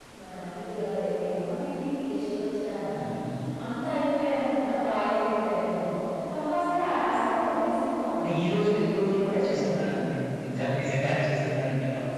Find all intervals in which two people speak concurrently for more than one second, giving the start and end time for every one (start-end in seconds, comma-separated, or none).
8.2-10.0